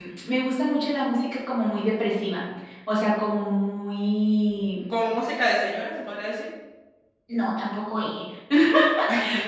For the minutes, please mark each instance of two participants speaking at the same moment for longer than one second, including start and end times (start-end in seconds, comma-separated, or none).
none